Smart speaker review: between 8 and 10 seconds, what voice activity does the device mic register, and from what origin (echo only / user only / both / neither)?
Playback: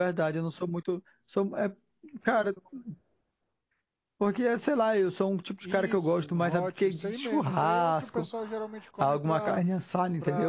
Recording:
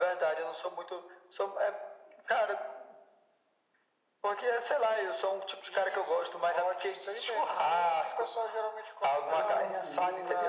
both